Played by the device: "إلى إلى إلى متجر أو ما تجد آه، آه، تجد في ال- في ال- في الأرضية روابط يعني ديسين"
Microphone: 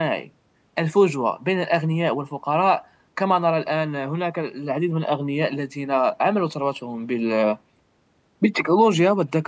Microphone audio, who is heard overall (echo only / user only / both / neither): user only